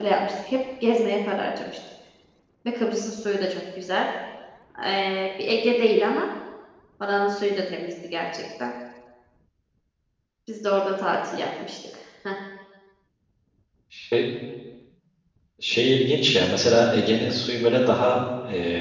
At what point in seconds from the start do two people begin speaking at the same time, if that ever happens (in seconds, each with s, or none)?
none